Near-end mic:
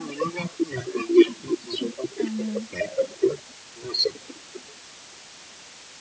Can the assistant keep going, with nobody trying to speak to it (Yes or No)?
No